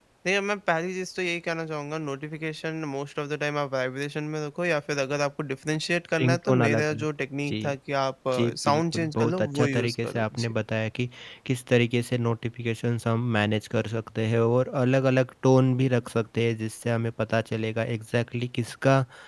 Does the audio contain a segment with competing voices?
Yes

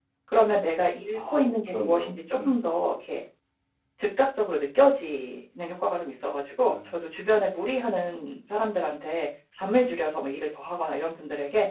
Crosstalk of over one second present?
Yes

